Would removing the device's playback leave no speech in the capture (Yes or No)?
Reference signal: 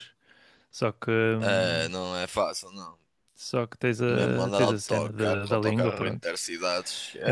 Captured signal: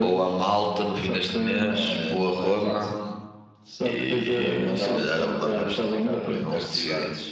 No